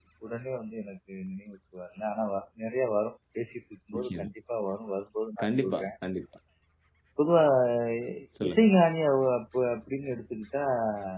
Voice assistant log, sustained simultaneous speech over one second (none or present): none